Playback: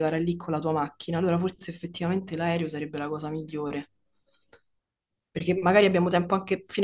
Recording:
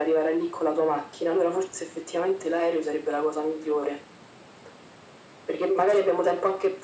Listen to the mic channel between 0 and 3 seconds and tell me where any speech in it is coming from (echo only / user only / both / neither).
echo only